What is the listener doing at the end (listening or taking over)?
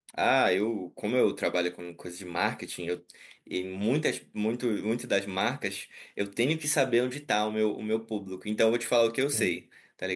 listening